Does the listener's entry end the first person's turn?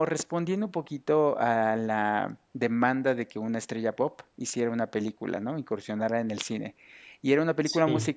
No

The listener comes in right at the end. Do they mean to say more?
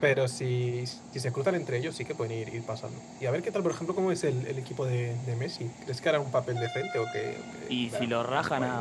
Yes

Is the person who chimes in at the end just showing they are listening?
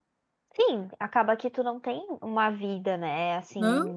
Yes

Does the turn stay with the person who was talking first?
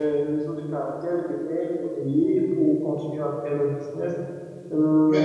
Yes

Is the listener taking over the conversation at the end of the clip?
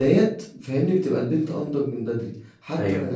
No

